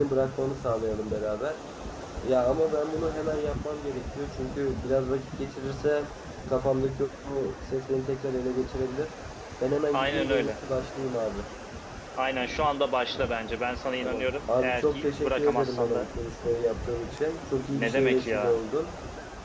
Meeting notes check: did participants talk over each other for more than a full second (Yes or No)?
Yes